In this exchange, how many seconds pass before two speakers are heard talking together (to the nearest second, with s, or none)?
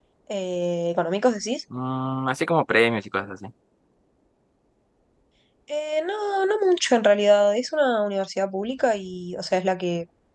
none